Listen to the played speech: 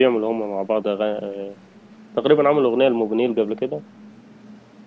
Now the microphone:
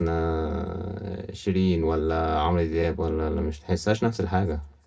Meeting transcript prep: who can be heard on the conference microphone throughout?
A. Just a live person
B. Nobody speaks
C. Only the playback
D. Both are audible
A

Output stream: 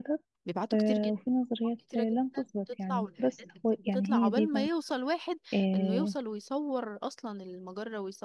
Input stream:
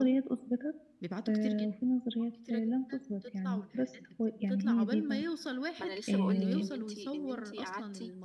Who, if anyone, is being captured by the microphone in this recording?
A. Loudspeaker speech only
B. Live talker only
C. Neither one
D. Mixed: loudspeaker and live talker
D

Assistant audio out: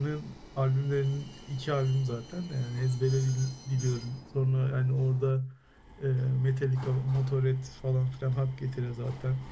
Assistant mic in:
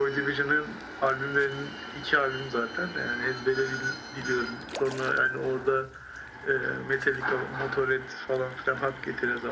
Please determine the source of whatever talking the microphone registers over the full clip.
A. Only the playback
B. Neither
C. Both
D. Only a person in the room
A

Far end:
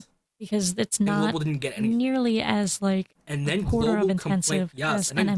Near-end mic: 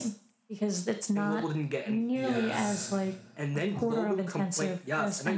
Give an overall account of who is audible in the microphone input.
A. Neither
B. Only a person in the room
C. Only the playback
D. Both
D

